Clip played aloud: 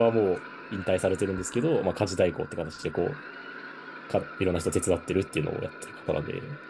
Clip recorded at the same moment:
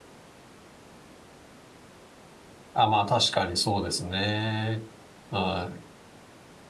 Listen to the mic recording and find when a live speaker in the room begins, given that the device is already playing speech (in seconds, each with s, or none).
2.7 s